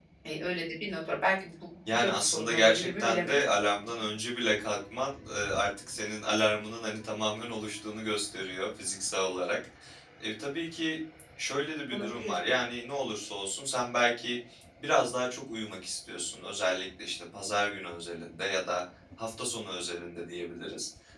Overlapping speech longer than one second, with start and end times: 1.9-3.3

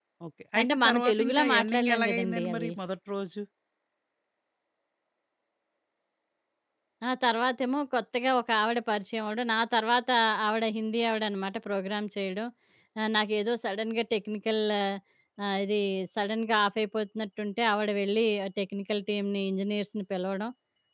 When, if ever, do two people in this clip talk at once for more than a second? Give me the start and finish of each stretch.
0.6-2.7

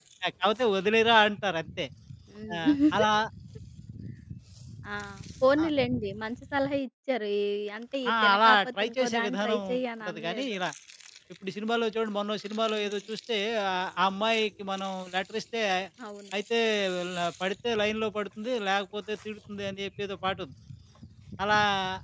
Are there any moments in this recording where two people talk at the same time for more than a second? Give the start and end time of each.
8.1-9.6

